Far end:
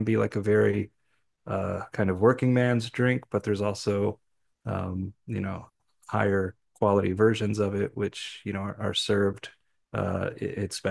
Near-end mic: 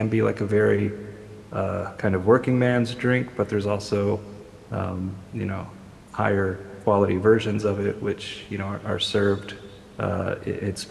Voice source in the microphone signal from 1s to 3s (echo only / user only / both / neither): echo only